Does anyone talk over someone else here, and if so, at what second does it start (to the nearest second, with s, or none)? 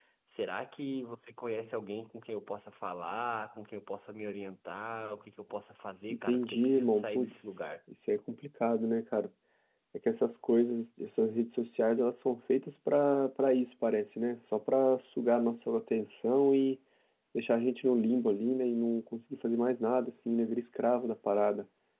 6 s